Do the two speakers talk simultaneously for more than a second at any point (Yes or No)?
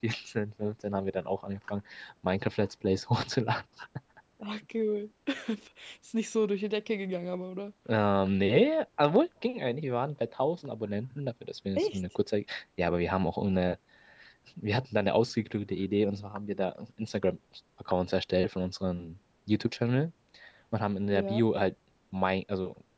No